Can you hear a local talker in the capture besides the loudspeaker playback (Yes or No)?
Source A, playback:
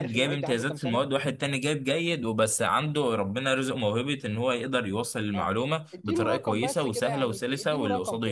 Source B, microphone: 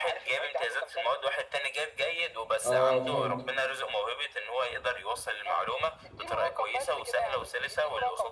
Yes